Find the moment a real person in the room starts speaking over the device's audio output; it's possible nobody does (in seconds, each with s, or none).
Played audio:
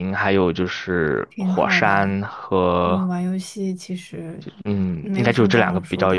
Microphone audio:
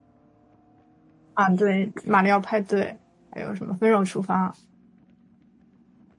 1.3 s